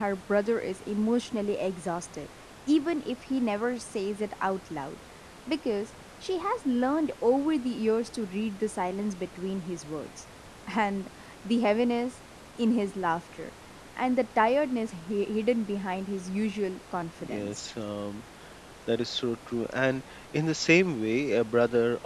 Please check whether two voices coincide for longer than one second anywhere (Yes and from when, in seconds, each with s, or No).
No